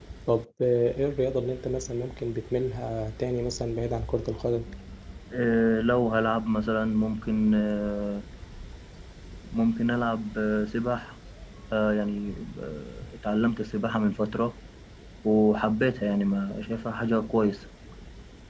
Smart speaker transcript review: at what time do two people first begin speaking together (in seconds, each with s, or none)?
none